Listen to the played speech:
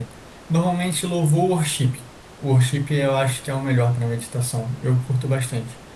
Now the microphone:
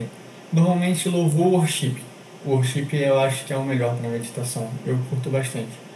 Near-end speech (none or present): none